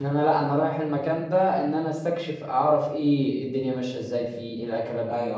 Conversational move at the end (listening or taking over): taking over